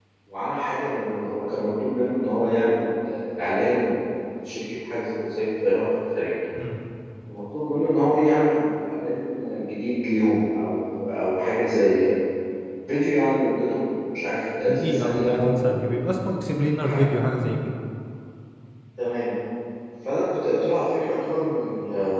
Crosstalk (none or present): present